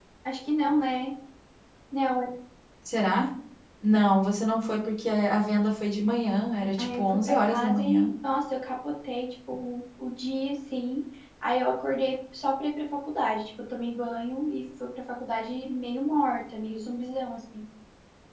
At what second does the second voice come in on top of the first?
7 s

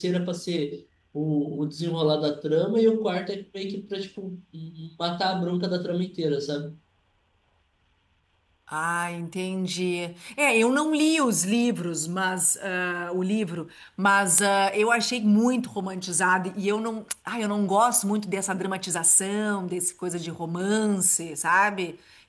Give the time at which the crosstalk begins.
none

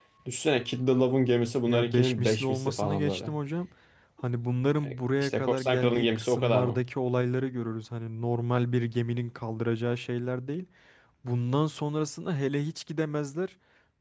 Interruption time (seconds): 2 s

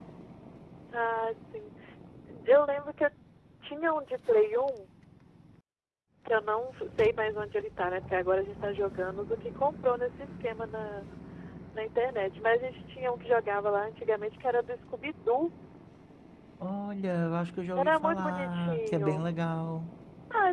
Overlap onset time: 18 s

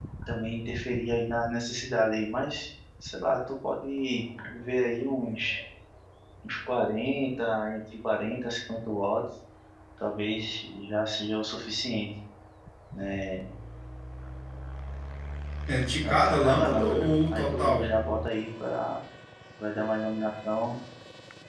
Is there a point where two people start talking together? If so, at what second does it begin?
16 s

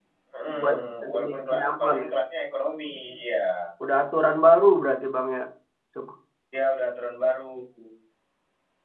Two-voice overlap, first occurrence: 1 s

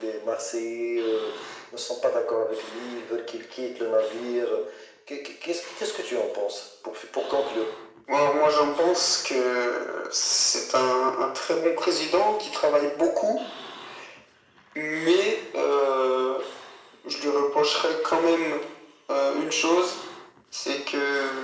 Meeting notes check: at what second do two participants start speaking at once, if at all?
none

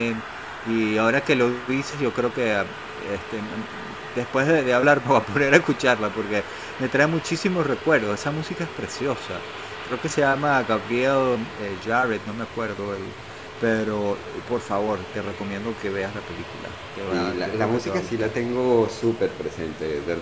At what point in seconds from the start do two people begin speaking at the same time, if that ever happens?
17 s

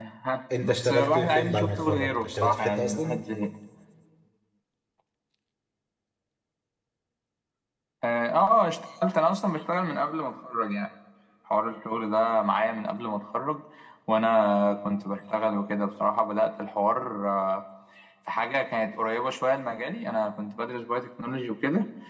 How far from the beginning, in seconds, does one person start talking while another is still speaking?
1 s

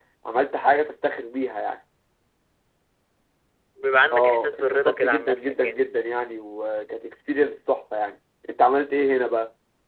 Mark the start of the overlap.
4 s

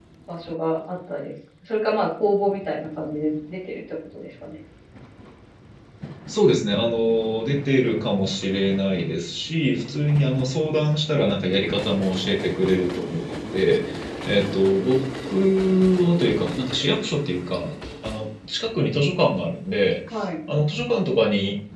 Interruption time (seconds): none

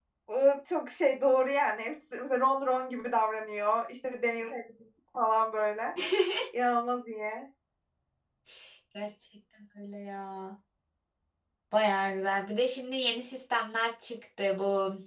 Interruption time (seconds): none

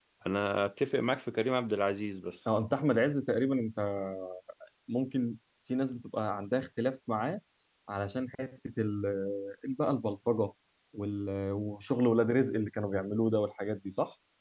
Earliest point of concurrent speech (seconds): none

